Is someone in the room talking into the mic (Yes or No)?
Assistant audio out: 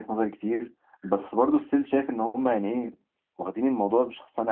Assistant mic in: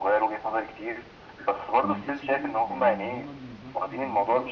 Yes